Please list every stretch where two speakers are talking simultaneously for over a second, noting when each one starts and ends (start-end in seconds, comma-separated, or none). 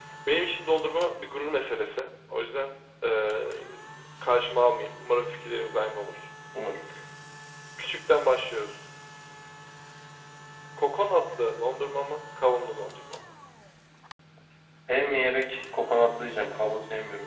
none